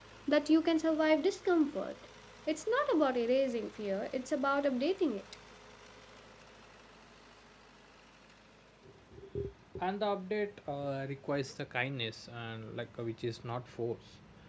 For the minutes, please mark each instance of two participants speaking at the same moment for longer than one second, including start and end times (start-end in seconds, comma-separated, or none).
none